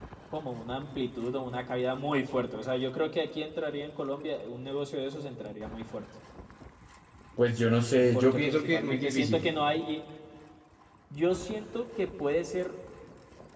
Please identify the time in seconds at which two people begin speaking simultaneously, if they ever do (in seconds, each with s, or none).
8.1 s